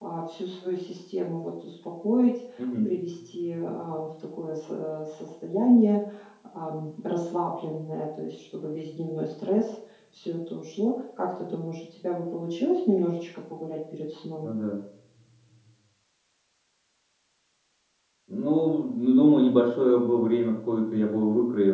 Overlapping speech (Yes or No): No